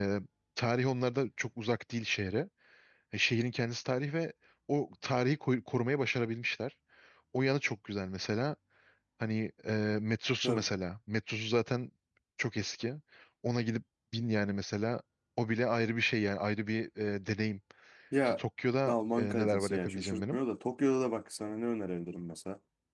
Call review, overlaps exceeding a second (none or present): present